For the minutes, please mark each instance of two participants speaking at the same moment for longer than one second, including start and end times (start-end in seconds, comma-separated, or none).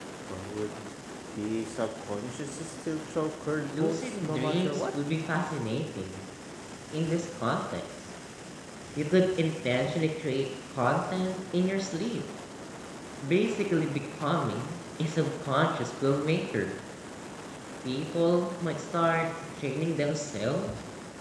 3.7-5.0